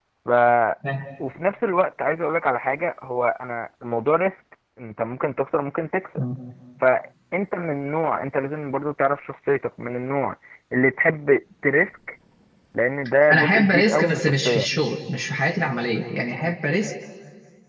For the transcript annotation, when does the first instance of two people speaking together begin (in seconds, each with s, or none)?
13.3 s